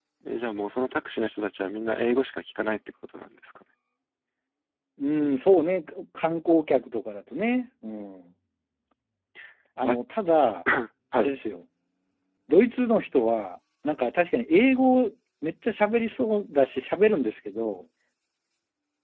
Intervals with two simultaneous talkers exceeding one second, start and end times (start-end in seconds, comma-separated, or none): none